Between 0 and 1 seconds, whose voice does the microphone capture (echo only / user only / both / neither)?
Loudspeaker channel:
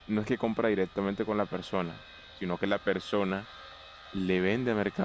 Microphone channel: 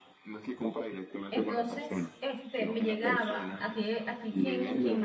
echo only